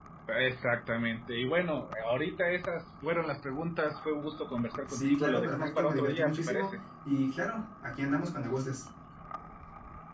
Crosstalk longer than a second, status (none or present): present